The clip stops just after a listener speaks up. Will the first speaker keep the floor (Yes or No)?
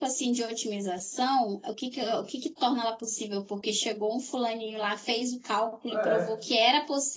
Yes